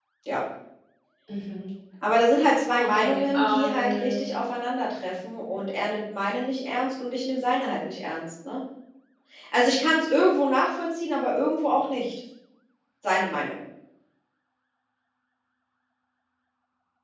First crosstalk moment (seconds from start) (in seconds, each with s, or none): 2.8 s